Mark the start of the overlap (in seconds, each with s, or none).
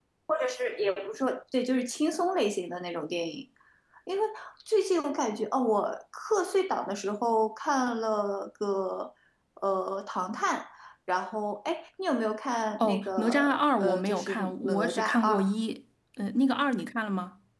12.8 s